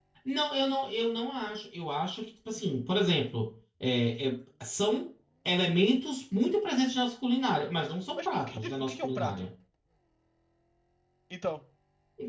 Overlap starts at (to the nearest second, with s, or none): 8 s